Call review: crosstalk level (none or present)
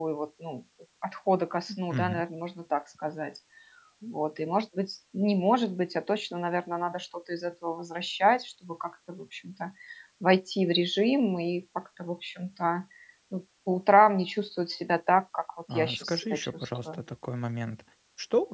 present